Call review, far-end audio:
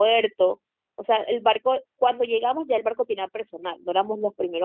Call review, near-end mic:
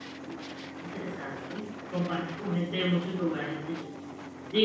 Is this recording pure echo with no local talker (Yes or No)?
No